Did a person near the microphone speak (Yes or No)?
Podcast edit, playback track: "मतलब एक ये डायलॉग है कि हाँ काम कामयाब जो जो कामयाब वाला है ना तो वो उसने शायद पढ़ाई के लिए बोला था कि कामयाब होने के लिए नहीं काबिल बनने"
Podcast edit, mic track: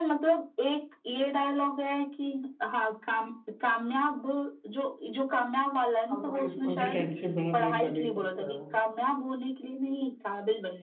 Yes